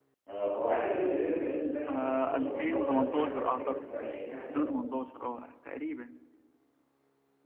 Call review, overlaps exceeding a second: present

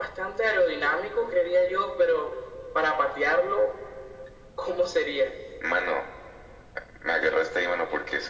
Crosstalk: none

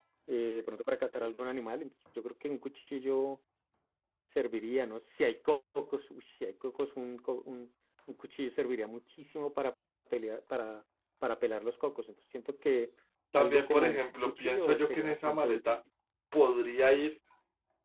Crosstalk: present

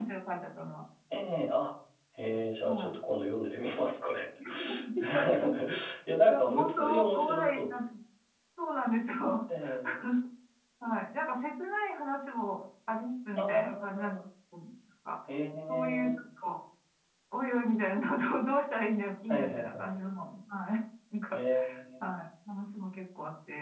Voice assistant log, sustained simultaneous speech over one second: present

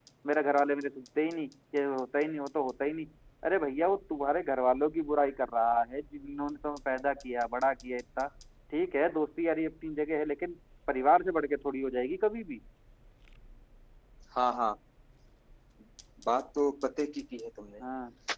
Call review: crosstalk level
none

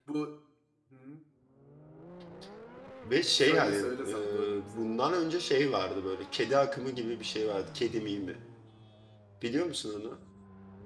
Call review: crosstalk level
present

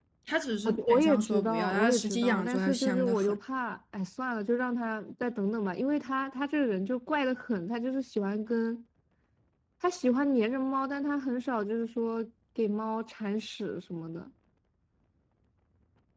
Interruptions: present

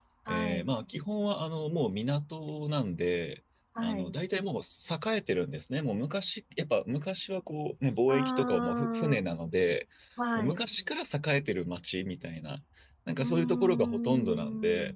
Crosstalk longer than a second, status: present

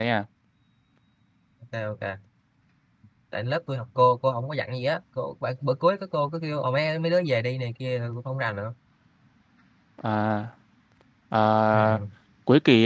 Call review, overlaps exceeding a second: none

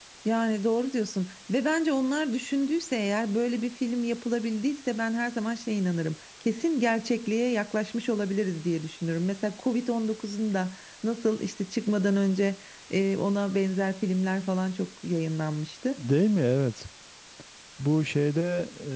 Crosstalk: none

